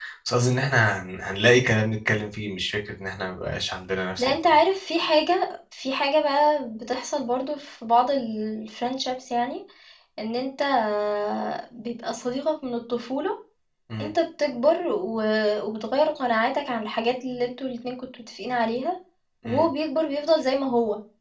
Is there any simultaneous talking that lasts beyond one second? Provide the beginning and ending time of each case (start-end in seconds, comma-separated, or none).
none